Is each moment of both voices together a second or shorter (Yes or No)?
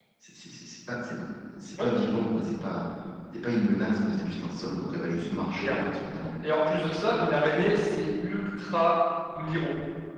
Yes